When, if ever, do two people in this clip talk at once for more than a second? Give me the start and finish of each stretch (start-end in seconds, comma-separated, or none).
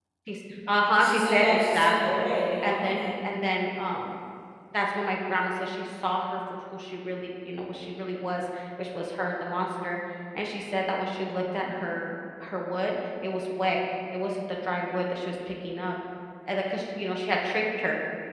0.9-3.1